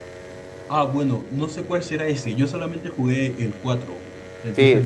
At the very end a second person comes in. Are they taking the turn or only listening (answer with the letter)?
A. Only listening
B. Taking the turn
B